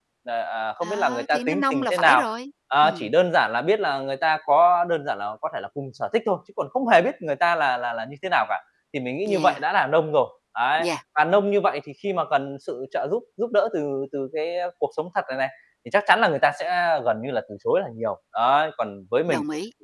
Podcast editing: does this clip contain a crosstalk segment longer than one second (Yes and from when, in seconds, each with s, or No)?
Yes, from 0.8 s